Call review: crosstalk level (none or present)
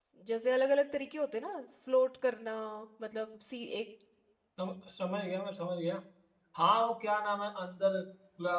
none